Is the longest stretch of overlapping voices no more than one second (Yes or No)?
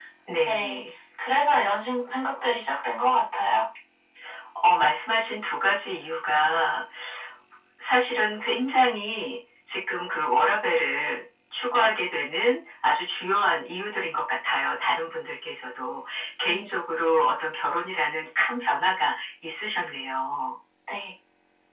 Yes